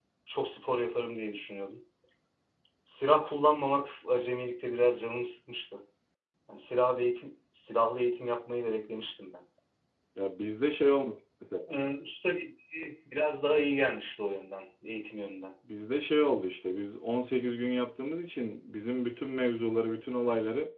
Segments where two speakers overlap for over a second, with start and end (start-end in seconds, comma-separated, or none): none